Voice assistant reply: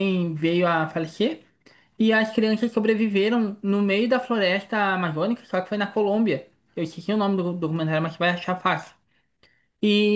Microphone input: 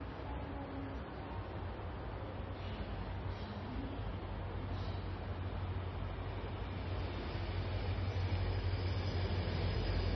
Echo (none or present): none